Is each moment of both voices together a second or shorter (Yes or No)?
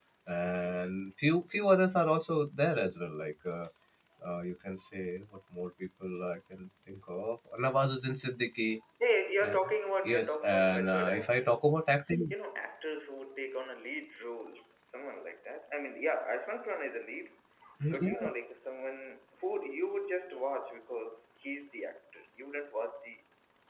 No